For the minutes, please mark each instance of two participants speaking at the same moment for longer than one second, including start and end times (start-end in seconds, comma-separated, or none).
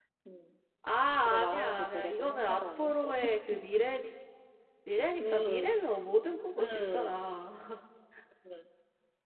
1.2-2.9